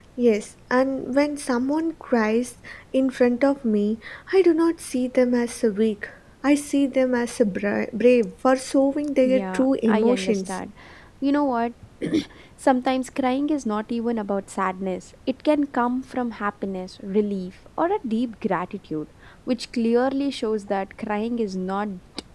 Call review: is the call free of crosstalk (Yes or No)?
No